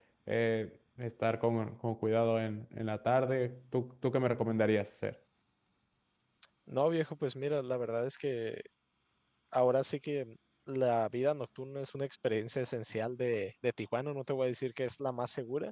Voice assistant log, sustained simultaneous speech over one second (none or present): none